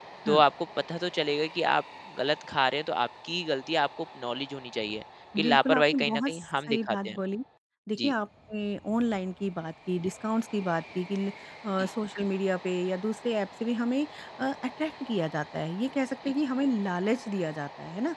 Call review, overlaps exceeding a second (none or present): present